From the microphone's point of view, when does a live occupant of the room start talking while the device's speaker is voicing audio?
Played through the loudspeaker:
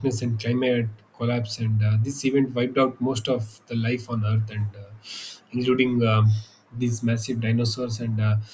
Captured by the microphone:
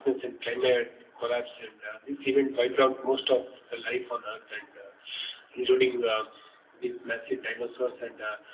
none

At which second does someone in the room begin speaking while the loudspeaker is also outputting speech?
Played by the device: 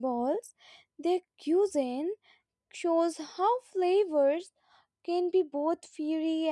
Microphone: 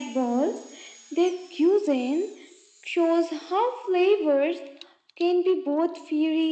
none

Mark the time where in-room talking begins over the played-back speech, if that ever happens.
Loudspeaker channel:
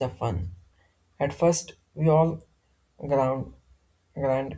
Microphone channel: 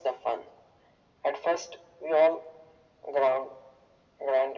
none

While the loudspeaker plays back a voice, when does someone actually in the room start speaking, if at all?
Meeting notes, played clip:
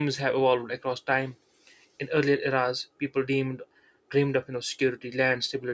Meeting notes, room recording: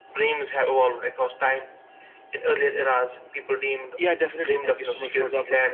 4 s

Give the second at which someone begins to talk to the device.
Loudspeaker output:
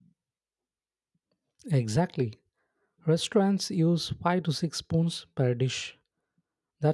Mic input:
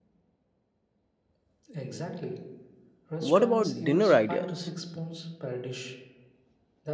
3 s

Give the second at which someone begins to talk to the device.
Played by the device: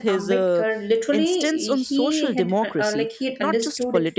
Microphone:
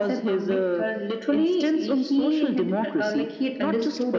none

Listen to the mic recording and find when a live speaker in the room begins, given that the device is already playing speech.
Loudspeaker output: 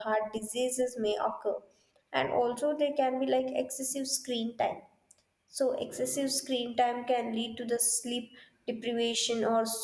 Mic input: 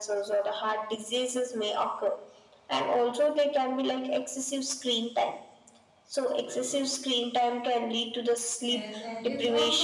9 s

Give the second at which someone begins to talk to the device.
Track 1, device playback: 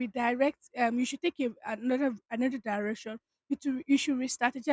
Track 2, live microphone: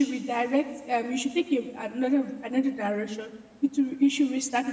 none

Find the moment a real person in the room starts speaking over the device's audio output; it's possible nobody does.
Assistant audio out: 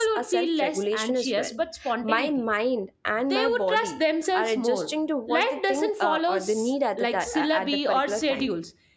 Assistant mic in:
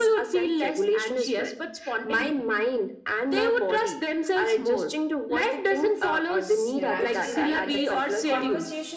7 s

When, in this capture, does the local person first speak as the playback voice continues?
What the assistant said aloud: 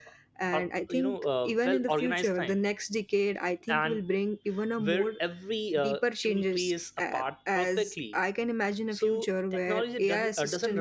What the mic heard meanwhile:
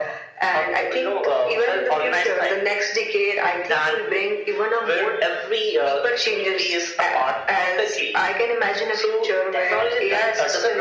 none

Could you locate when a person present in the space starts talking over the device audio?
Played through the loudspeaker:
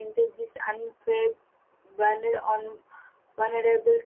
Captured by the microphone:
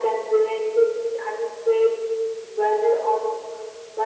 none

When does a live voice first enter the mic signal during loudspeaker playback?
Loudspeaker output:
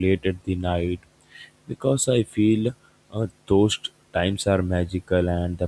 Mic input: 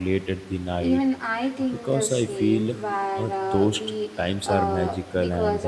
1 s

